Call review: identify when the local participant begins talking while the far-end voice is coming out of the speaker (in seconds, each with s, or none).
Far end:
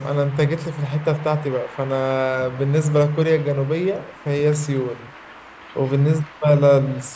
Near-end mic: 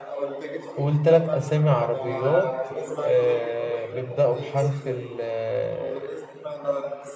0.8 s